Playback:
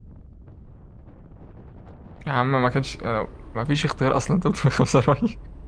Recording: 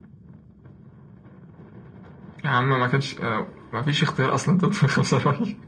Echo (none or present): present